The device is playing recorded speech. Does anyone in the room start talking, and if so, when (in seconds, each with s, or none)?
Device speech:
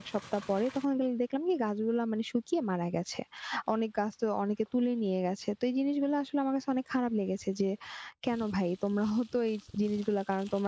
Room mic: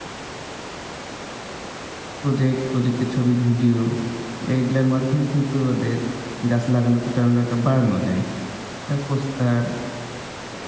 2.2 s